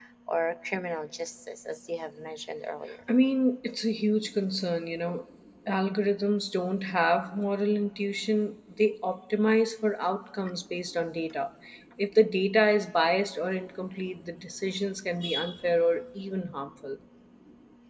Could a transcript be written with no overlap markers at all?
Yes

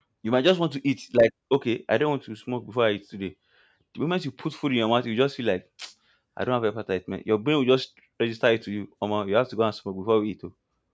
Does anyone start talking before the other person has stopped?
No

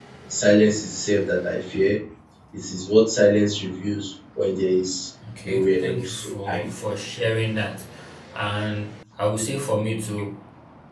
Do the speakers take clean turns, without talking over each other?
No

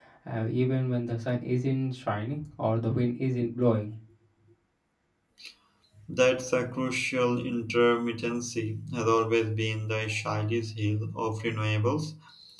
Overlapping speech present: No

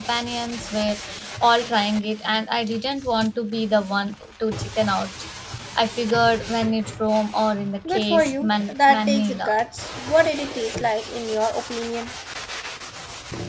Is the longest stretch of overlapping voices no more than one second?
No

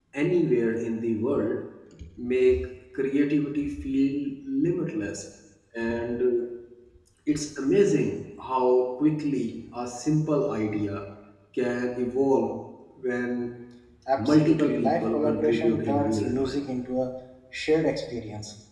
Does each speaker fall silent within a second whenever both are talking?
No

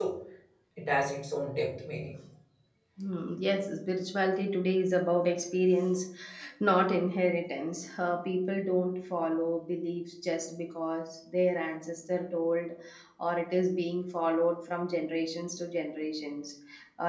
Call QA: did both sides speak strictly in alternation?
Yes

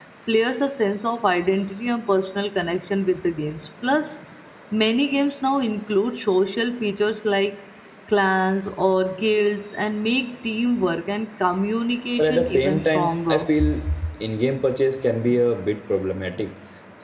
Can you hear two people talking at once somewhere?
Yes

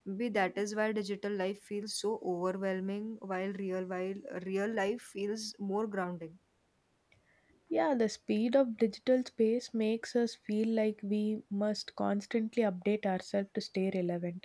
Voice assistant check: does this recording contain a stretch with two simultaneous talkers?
No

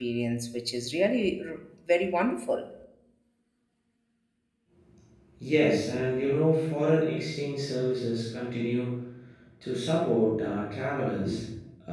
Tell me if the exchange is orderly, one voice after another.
Yes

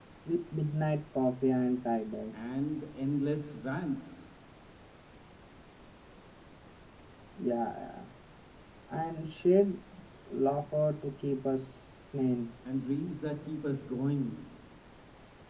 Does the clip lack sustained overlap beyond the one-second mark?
Yes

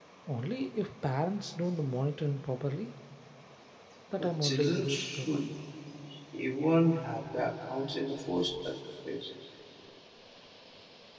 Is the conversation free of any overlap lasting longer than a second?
No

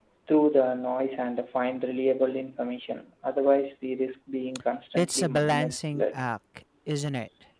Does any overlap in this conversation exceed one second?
Yes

